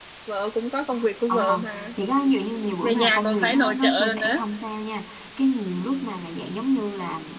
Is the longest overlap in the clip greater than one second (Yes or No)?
Yes